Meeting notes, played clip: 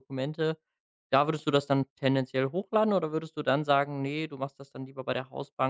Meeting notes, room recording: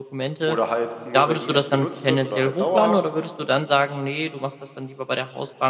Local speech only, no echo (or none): oder halt nur, wenn die App genutzt wird oder halt dauerhaft.